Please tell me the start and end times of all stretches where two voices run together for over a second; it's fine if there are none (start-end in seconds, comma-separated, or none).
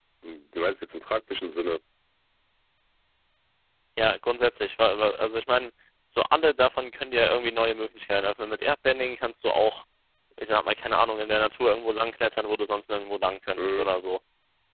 none